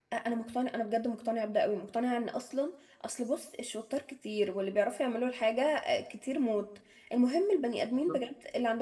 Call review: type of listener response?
listening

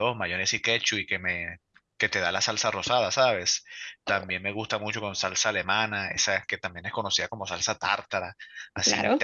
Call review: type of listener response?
listening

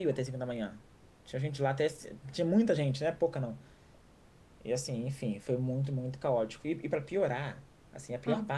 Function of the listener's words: listening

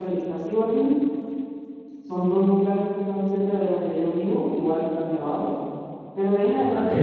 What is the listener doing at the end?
listening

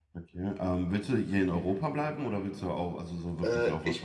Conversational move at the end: taking over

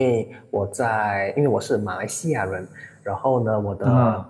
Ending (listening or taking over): listening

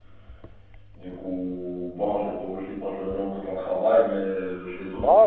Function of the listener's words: taking over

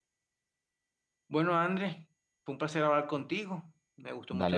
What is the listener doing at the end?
listening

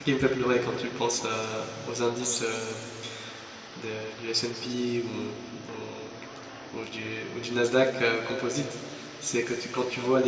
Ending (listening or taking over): listening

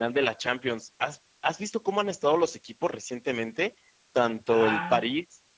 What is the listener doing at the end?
listening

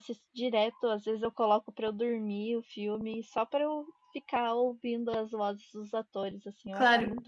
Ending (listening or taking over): taking over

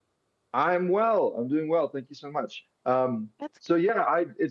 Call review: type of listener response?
listening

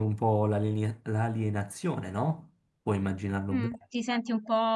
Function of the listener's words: taking over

